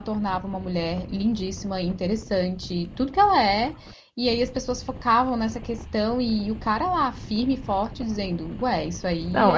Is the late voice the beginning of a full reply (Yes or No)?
Yes